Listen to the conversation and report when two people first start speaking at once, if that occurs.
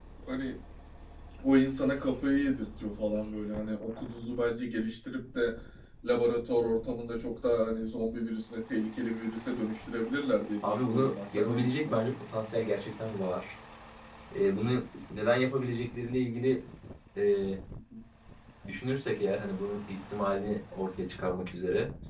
10.6 s

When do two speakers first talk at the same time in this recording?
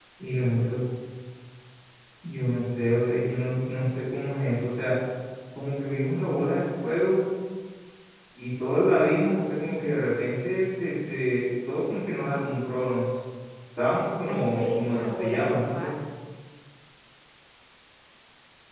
14.3 s

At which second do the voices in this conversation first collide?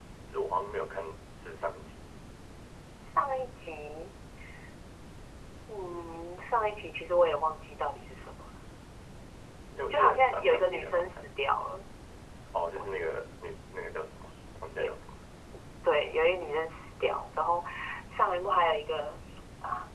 9.9 s

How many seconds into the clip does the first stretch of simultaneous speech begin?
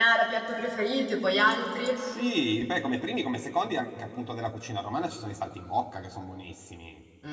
none

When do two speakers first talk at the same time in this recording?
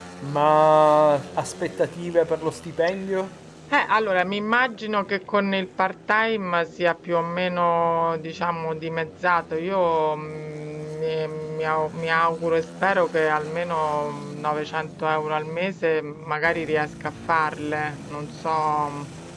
none

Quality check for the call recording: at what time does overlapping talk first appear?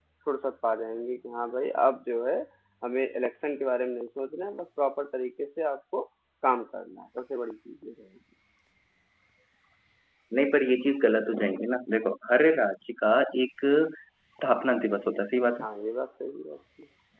none

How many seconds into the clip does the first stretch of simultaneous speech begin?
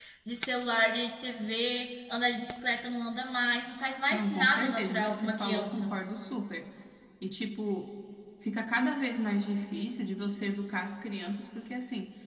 4.1 s

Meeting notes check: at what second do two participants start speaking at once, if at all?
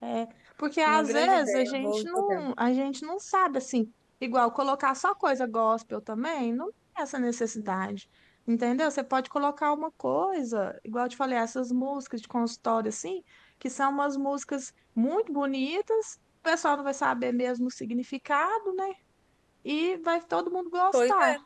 0.9 s

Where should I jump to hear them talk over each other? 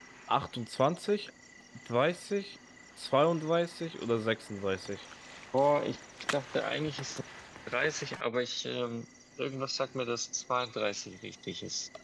none

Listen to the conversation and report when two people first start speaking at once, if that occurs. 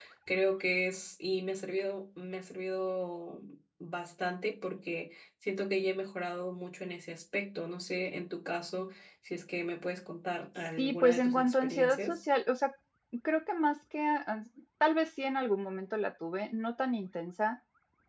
10.8 s

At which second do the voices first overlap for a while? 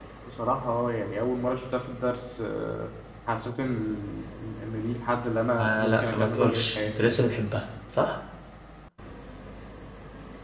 5.6 s

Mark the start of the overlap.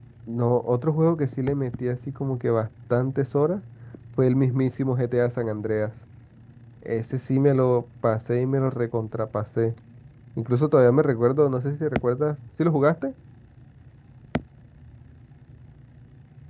none

